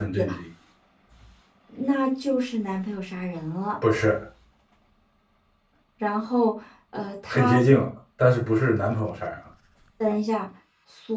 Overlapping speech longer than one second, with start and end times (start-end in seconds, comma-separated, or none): none